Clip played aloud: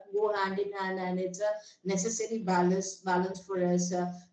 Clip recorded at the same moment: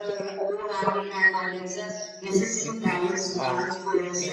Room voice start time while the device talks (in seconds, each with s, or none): 2.6 s